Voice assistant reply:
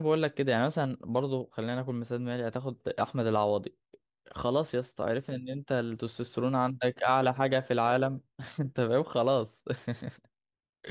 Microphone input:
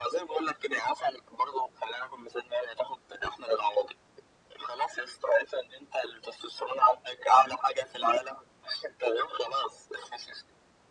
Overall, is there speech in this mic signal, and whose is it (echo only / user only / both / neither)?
echo only